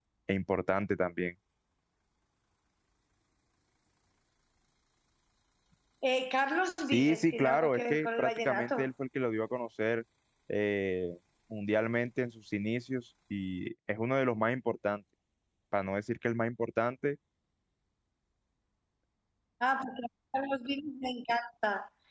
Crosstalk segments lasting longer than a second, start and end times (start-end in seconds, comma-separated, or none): 6.9-8.9